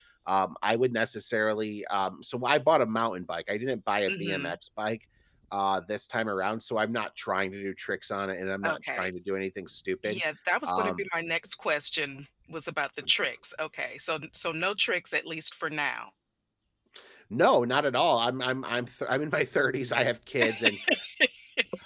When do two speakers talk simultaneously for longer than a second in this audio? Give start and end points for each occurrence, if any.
none

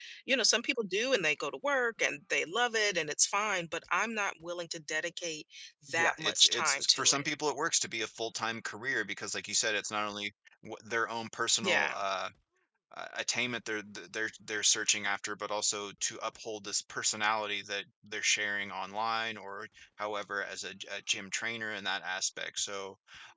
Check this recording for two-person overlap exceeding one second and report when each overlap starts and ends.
6.0-7.2

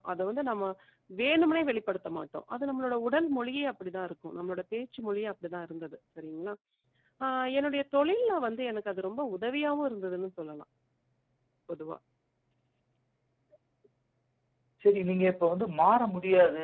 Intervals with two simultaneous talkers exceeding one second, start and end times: none

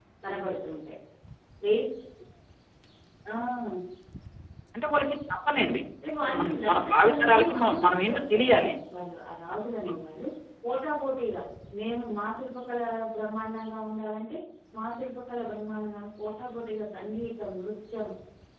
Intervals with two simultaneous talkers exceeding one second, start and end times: 6.2-8.6

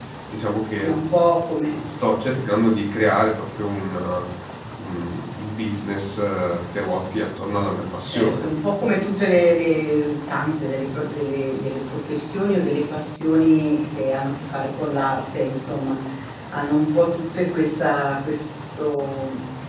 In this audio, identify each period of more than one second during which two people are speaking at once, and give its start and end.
none

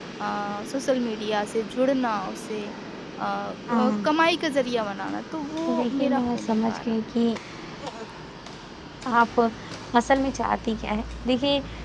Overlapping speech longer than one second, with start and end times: 5.7-7.0

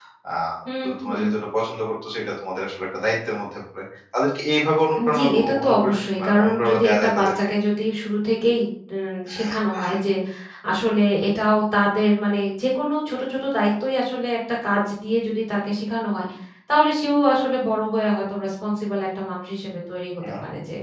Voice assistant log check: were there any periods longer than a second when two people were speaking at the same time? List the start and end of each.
5.1-7.3

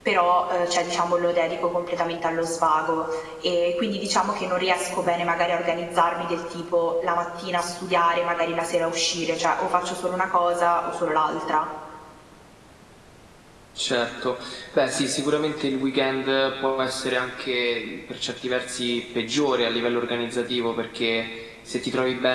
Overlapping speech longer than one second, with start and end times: none

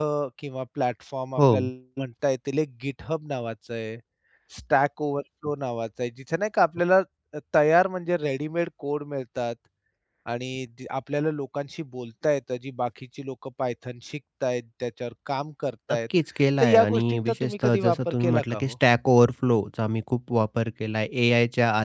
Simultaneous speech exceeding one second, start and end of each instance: 16.6-18.7

